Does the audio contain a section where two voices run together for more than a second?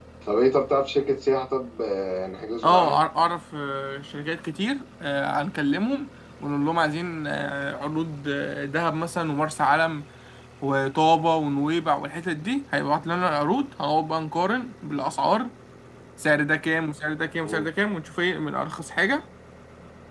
No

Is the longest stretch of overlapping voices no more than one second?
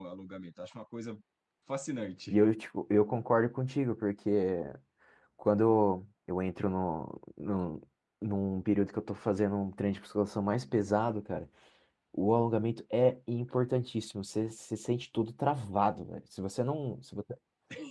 Yes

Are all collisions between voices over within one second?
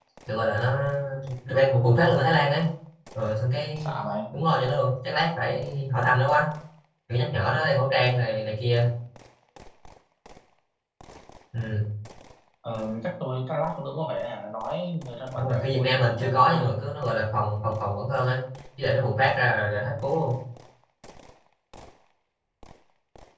No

